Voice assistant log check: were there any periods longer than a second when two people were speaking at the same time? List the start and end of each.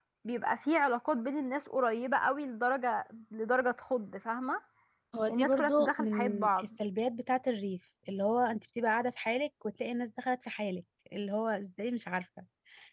5.3-6.7

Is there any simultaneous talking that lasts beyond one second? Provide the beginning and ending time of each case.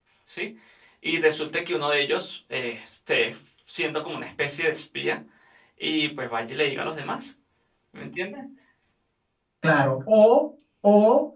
none

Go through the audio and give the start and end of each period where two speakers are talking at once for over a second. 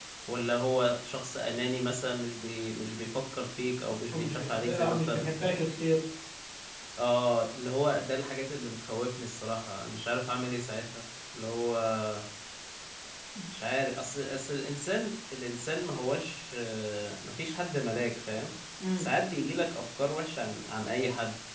4.1-5.5

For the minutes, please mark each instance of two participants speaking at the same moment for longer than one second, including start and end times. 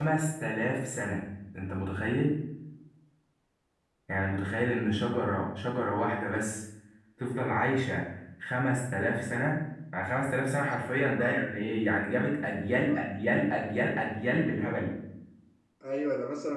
none

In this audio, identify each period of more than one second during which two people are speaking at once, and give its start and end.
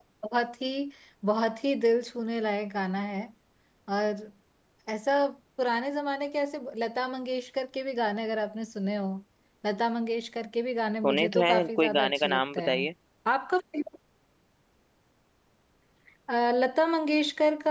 11.0-12.9

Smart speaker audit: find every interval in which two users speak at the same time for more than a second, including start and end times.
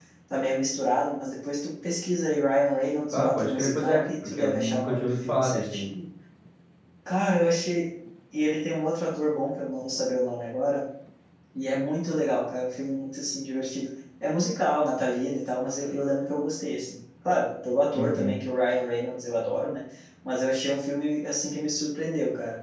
3.1-5.9

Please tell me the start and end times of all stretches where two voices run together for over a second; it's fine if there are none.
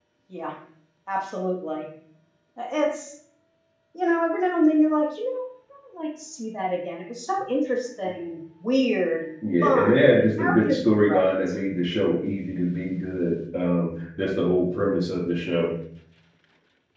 9.6-11.3

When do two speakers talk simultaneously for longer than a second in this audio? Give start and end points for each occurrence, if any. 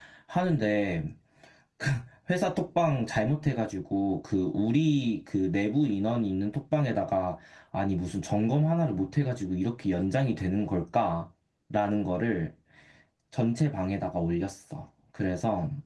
none

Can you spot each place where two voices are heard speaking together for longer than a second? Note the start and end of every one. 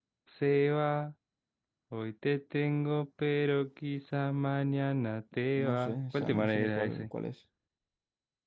5.6-7.0

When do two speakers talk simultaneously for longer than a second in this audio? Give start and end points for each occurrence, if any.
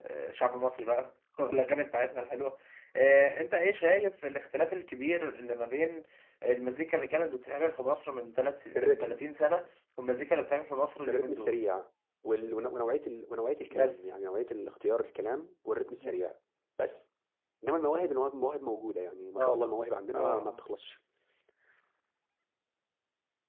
none

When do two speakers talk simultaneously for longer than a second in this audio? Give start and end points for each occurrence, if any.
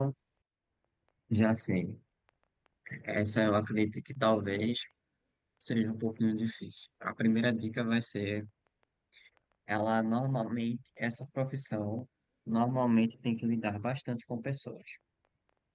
none

